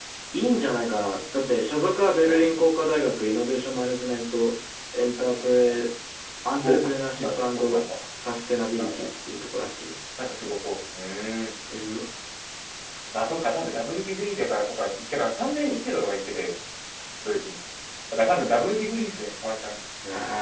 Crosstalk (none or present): present